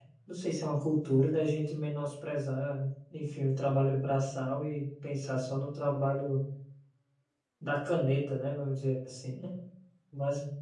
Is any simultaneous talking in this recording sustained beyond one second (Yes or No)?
No